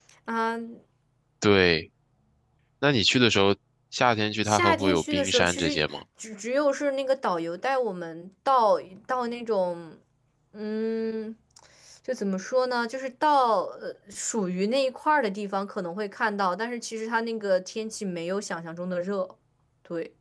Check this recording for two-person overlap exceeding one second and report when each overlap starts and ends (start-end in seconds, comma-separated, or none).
4.4-6.0